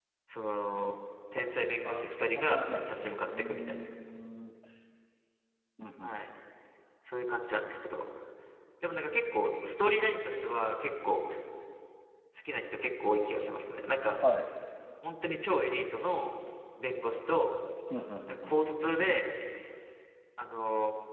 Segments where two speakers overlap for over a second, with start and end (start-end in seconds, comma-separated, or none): 1.8-3.8